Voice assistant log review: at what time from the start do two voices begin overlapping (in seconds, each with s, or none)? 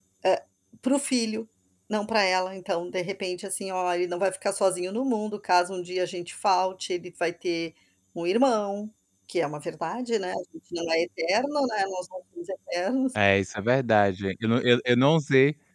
none